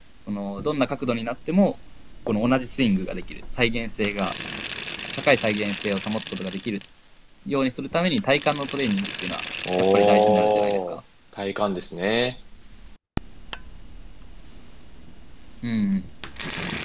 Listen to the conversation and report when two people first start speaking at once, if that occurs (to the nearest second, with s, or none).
10 s